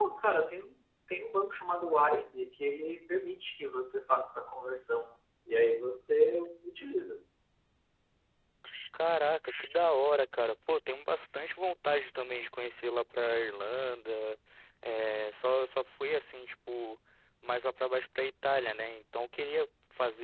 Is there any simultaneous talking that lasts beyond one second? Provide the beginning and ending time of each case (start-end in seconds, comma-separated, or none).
none